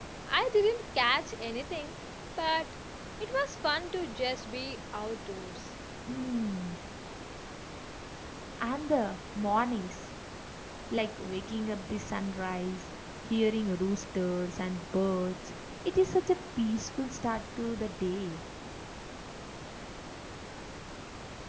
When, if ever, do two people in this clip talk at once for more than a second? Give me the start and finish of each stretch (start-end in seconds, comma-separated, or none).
none